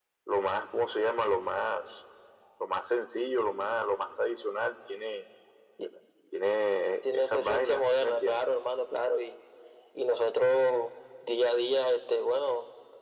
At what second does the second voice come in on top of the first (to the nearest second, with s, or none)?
7 s